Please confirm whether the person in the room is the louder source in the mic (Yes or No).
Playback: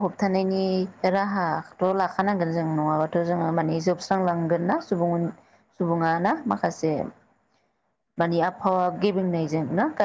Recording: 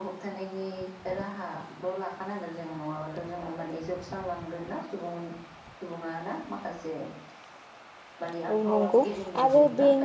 Yes